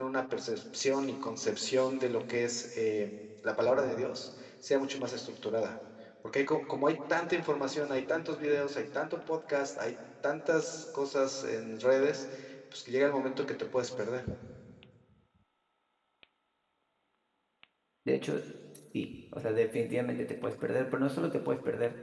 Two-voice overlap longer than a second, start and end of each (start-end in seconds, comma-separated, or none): none